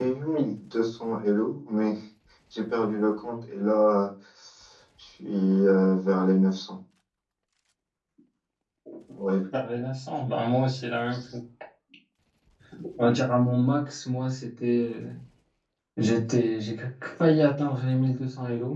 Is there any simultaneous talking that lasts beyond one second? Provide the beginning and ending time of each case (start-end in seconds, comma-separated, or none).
none